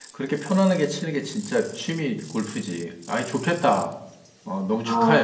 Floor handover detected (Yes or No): Yes